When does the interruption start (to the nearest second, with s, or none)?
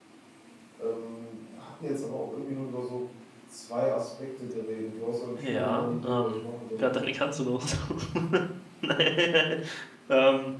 5 s